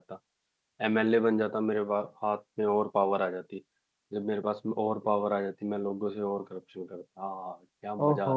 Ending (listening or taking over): taking over